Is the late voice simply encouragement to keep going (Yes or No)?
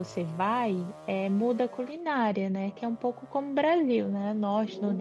Yes